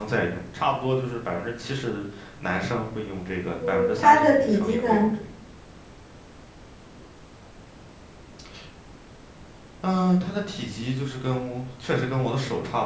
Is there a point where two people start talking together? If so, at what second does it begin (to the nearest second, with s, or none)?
4 s